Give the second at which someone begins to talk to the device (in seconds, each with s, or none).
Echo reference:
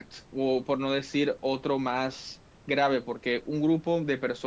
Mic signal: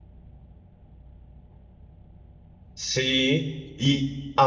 2.7 s